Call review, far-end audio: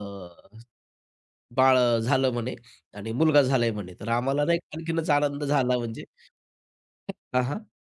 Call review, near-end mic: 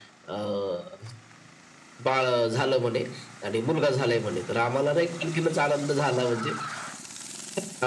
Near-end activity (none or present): none